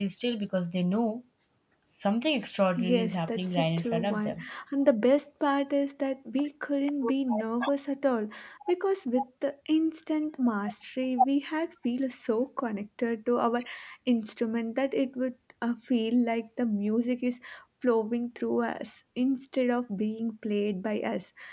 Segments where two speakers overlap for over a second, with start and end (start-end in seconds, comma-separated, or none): 2.8-4.5